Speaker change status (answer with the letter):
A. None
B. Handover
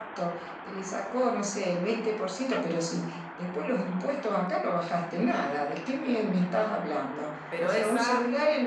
A